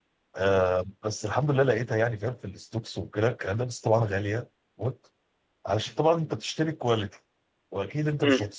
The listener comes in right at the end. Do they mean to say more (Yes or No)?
No